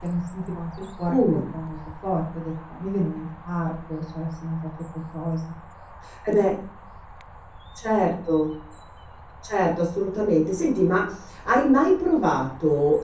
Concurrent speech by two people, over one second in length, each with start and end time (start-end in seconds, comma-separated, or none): none